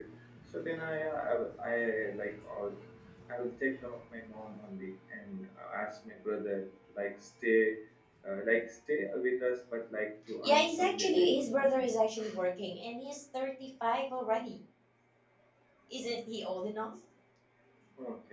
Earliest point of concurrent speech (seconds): 10.4 s

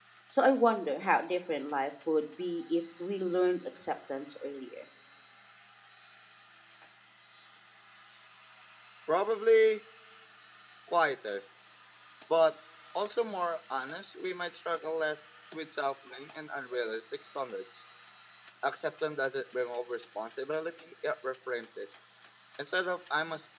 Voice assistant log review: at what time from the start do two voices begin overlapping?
none

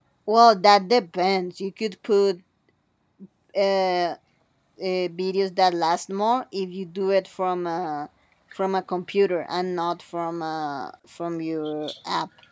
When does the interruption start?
none

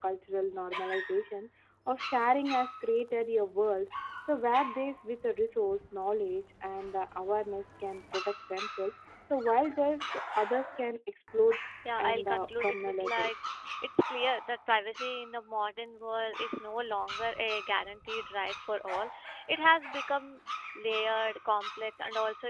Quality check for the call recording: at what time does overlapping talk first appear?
12.0 s

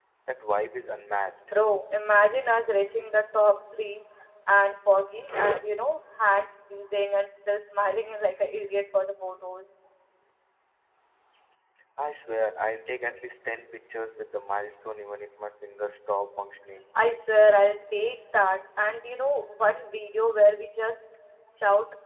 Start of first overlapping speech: none

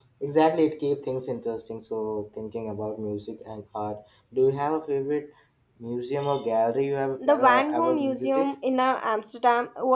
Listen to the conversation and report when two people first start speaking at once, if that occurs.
7.2 s

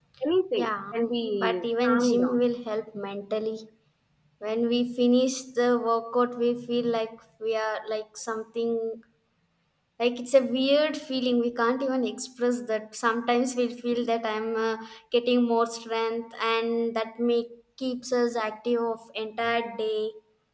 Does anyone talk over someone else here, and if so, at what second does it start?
0.6 s

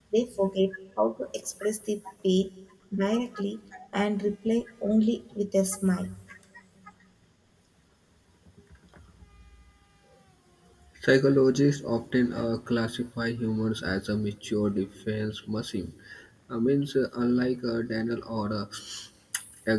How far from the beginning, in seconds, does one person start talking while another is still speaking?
none

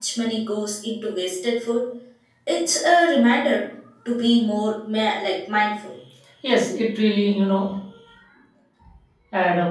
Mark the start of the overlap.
none

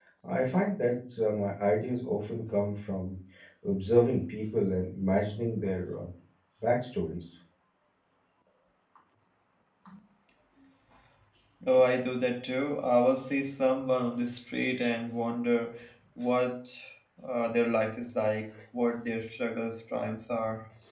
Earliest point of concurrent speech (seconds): none

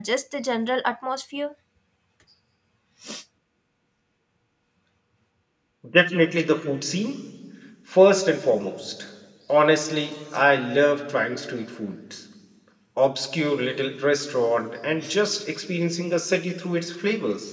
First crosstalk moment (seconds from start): none

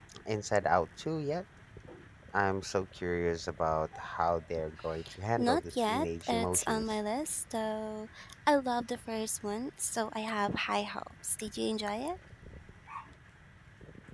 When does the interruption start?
5.4 s

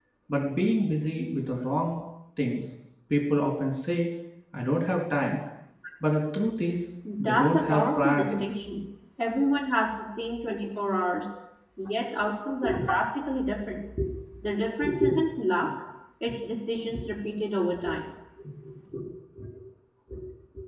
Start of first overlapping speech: 7.2 s

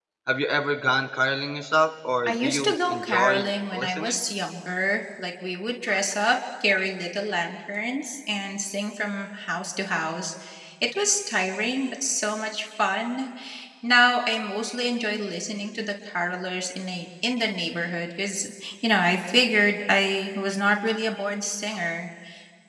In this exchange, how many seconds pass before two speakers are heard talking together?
2.3 s

